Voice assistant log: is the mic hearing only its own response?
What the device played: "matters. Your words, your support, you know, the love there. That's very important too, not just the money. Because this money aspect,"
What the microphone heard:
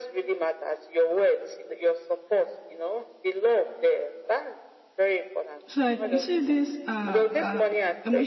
No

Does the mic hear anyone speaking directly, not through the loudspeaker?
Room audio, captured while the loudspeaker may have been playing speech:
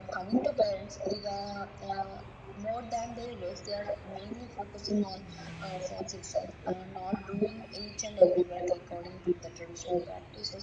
No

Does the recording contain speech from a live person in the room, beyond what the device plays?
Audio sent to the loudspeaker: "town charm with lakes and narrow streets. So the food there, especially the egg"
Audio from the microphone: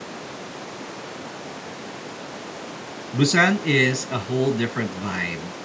Yes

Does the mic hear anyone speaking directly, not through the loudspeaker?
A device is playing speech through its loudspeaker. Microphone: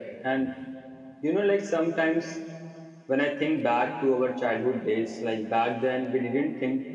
No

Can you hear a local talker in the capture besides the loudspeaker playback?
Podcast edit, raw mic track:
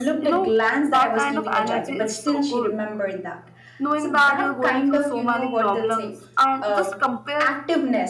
Yes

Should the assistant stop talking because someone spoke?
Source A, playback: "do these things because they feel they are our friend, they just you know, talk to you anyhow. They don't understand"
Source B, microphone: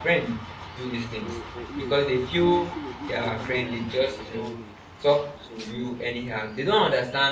Yes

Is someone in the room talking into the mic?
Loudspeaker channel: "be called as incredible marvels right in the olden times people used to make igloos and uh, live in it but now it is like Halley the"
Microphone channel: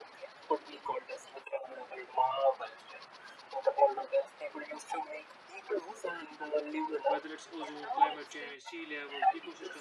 Yes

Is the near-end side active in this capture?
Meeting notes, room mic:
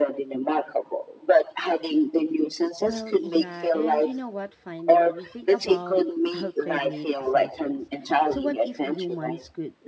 Yes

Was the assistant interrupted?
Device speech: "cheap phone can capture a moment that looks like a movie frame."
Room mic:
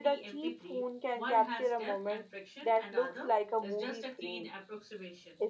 Yes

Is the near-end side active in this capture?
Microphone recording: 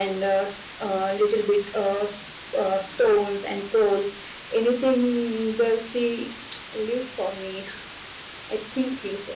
No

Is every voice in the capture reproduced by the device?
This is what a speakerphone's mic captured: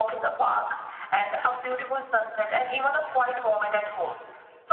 Yes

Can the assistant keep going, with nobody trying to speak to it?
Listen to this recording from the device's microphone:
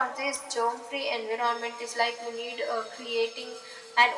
Yes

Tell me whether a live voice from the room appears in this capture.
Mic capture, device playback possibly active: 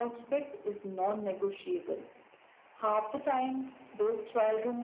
No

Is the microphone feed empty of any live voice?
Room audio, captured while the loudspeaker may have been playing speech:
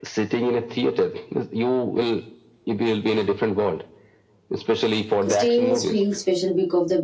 No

